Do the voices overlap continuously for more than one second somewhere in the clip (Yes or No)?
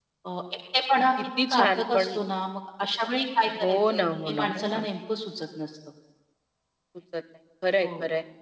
Yes